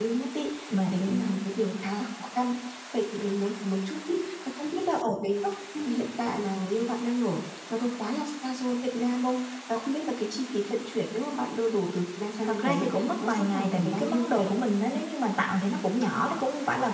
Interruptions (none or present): present